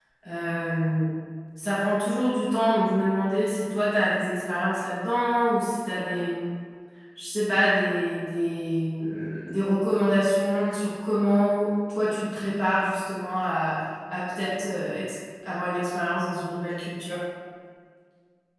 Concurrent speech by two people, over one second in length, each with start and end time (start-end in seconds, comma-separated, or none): none